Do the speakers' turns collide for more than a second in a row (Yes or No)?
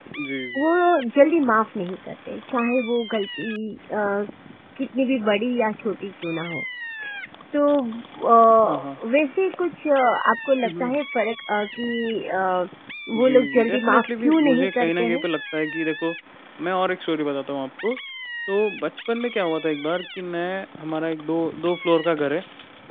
Yes